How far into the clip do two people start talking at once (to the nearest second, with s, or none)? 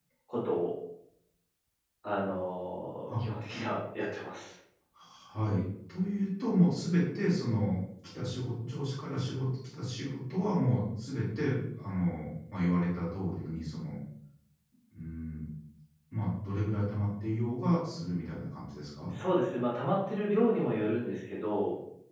none